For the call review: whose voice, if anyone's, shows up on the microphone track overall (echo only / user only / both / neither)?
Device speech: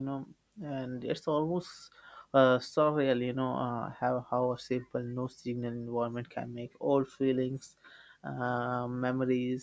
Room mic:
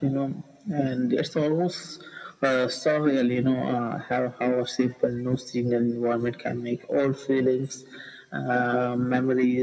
echo only